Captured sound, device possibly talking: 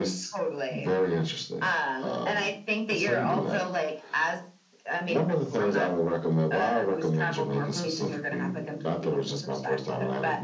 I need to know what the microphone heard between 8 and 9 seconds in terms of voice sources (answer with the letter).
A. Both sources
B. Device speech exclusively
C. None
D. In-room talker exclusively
B